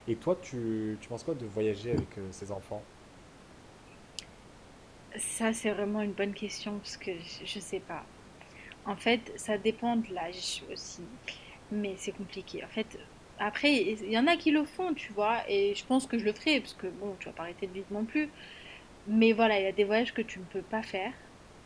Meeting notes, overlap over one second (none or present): none